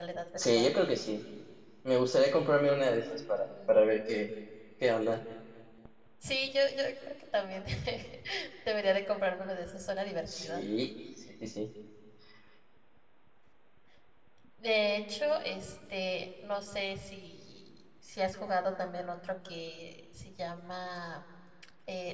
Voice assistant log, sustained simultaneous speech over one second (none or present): none